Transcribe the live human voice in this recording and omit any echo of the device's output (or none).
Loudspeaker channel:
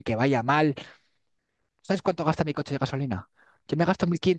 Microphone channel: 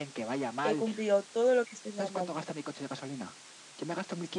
he cumplido todo lo que se me manda.